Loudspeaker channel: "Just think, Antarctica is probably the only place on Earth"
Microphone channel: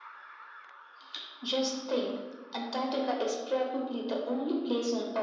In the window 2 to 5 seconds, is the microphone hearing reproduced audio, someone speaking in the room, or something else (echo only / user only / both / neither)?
echo only